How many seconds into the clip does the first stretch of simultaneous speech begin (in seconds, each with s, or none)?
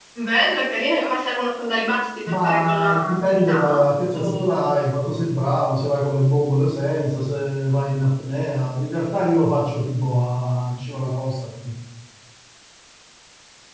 2.3 s